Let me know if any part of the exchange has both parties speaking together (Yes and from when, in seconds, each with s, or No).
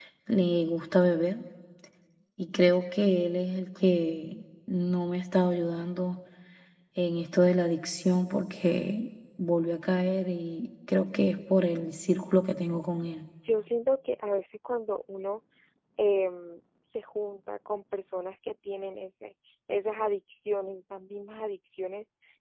No